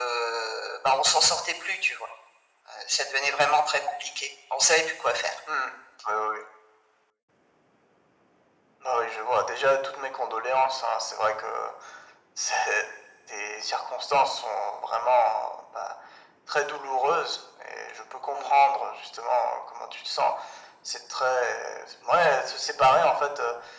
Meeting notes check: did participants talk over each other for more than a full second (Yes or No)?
No